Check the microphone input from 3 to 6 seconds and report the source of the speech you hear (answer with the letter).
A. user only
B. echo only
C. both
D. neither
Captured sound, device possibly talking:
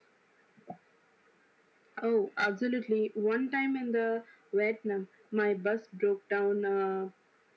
B